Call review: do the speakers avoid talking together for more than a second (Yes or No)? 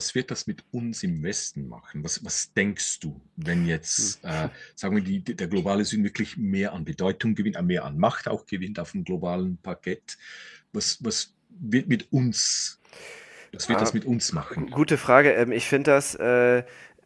Yes